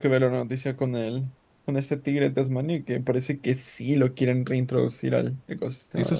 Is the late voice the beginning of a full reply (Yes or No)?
Yes